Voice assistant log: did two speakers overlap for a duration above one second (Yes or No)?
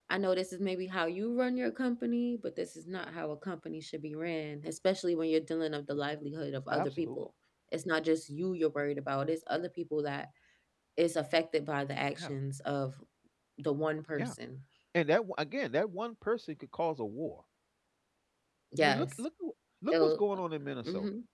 No